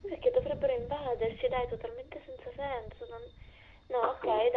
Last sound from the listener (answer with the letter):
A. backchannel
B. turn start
A